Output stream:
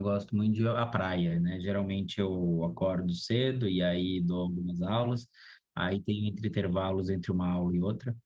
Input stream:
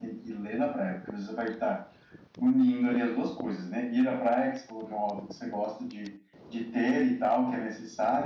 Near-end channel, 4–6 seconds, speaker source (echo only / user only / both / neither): user only